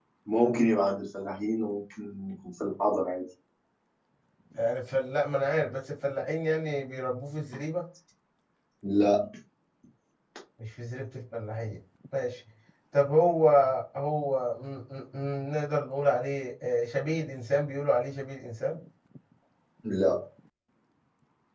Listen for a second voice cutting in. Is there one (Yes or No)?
No